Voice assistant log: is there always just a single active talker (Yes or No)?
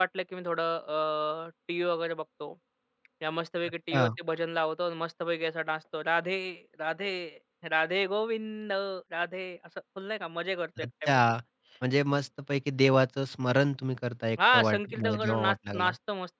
No